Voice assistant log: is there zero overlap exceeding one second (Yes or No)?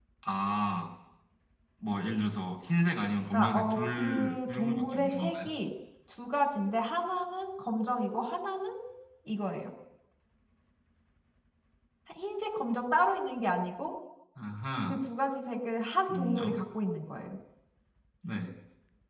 No